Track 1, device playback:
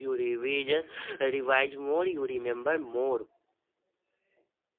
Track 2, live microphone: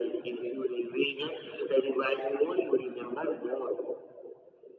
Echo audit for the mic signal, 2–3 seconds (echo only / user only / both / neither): echo only